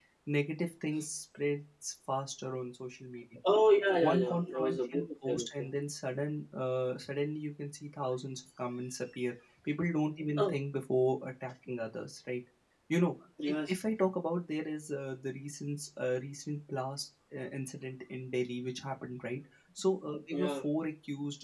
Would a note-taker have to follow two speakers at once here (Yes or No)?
Yes